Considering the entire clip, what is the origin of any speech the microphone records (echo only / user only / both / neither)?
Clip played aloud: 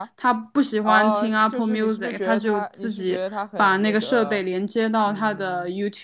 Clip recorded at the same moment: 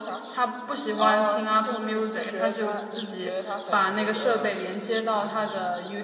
echo only